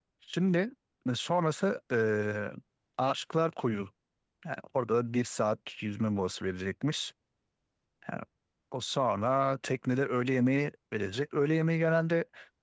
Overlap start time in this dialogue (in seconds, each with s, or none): none